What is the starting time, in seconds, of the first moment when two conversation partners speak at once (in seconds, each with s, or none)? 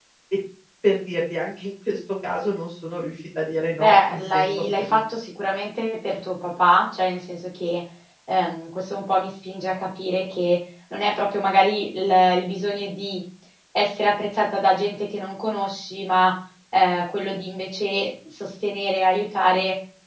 3.8 s